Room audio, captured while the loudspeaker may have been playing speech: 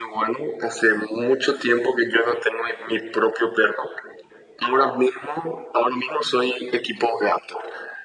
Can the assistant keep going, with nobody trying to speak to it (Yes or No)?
Yes